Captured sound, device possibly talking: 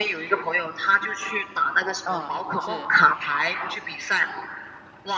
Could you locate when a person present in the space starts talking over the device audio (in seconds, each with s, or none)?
2.0 s